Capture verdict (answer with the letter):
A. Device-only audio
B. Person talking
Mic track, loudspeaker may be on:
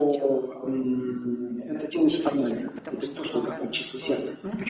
B